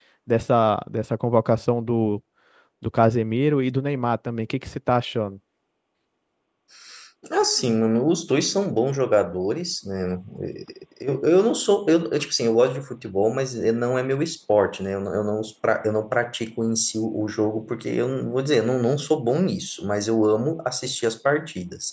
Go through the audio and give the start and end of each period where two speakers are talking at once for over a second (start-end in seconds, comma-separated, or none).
none